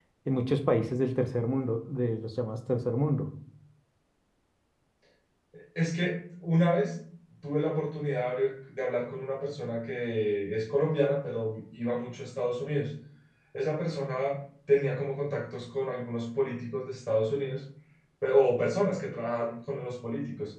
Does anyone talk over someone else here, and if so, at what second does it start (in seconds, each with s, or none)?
none